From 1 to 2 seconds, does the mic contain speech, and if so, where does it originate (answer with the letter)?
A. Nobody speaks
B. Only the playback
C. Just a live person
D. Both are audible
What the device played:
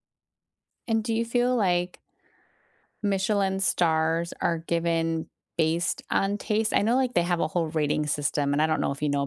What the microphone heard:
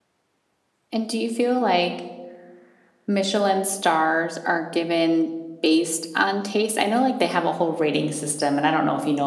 B